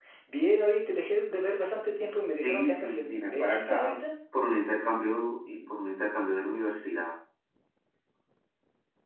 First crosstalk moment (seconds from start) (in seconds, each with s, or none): 2.4 s